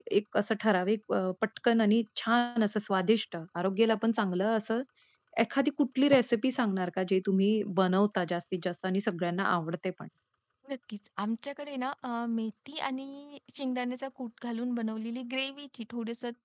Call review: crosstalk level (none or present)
none